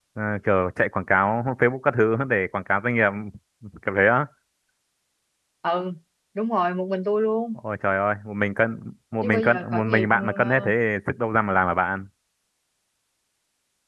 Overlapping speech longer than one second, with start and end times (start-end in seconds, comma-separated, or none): 9.2-10.7